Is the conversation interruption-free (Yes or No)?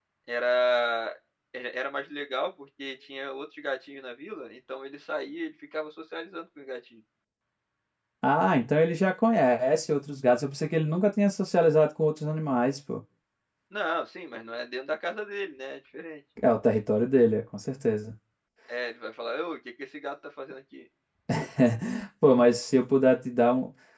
Yes